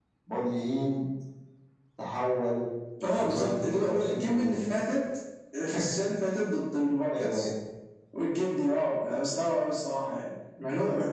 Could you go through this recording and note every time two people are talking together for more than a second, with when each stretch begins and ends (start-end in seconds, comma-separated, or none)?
3.1-4.8